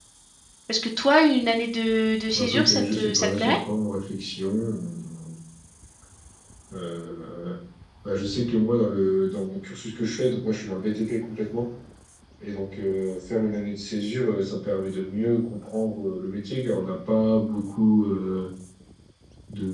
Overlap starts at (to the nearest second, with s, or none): 2 s